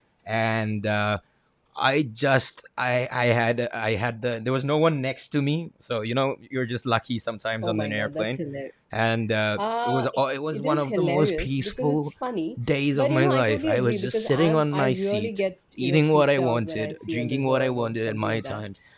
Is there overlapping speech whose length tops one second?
Yes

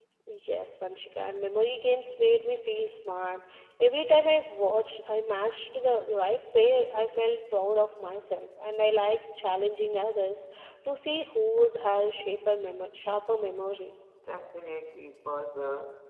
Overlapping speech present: No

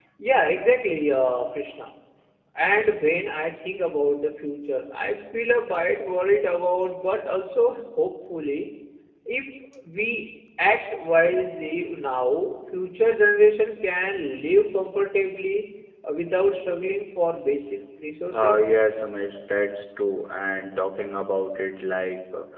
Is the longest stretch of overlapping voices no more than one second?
Yes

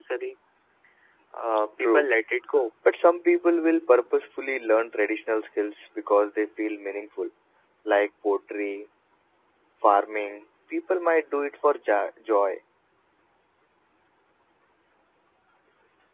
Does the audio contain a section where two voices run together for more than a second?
No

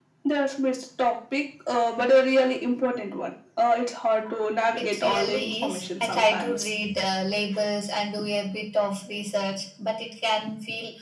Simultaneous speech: Yes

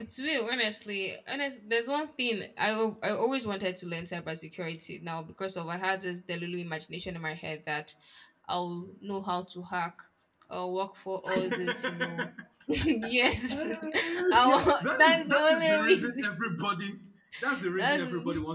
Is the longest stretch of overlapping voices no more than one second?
No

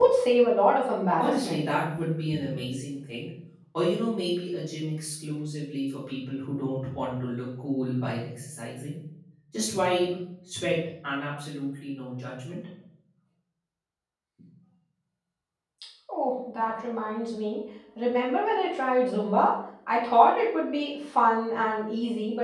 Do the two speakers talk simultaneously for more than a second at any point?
No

